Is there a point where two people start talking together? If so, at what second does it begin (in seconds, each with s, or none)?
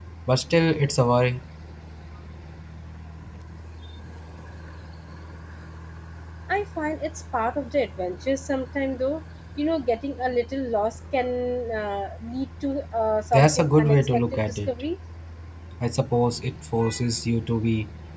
13.3 s